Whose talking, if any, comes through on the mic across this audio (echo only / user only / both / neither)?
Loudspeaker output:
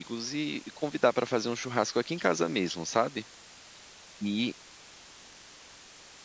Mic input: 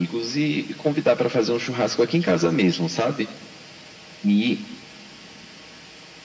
echo only